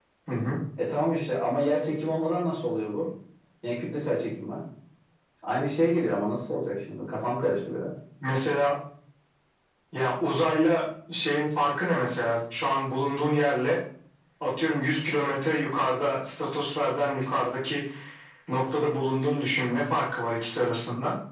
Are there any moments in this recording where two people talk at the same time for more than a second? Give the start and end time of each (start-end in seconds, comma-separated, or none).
none